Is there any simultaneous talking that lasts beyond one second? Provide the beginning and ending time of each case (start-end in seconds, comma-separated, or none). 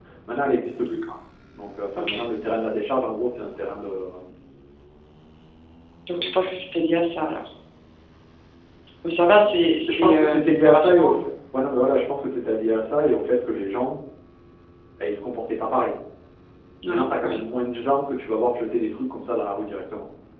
9.9-11.2